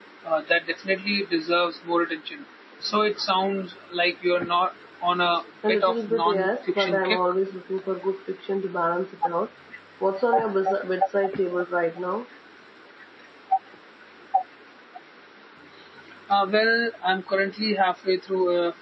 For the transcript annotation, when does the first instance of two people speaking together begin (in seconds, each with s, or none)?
5.6 s